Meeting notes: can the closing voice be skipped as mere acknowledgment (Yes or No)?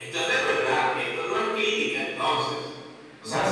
No